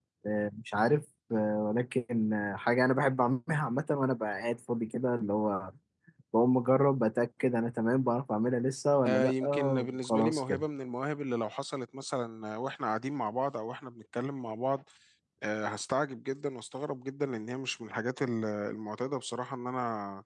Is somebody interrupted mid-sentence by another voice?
Yes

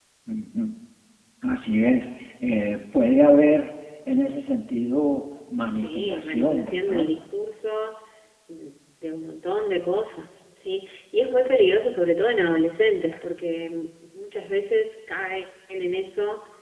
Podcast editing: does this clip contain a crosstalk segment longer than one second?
Yes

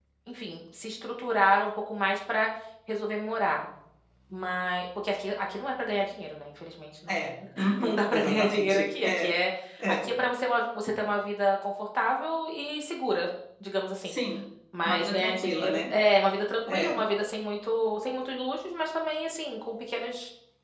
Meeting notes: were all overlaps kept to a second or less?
No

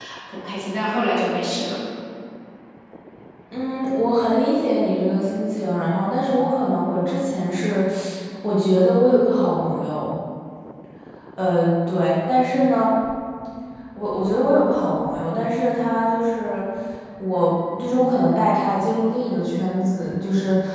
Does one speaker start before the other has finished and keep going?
No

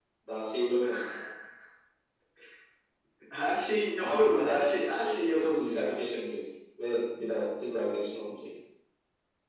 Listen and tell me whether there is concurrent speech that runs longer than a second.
Yes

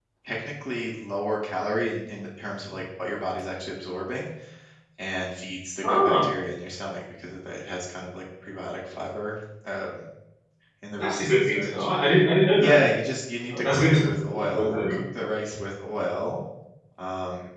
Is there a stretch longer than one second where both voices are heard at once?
Yes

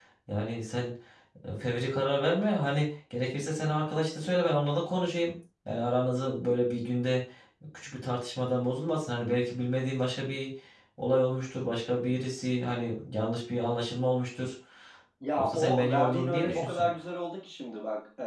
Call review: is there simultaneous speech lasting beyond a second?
Yes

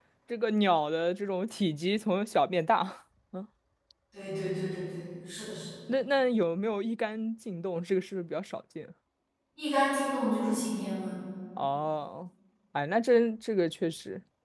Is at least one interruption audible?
No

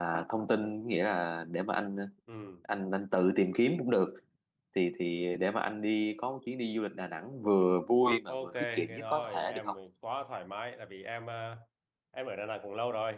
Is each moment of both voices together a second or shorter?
No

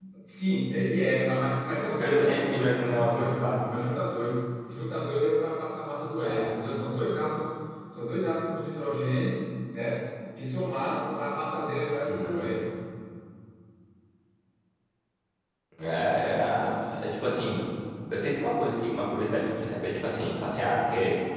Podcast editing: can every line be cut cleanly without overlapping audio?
No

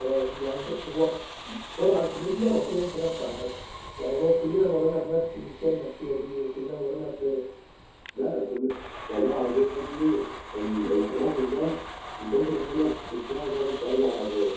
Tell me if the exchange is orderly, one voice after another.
Yes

